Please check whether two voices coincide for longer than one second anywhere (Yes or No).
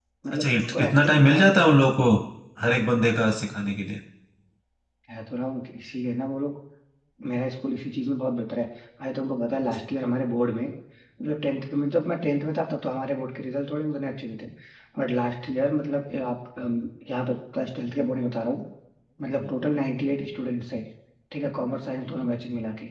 Yes